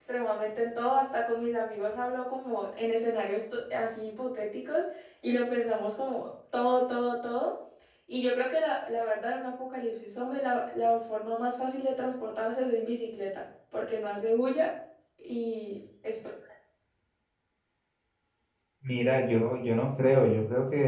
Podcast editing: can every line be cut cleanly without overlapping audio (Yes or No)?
Yes